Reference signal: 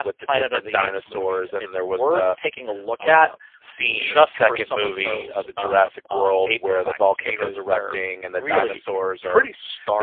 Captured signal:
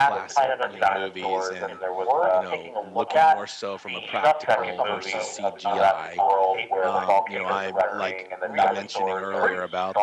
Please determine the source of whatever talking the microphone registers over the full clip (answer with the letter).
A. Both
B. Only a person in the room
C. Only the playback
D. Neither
A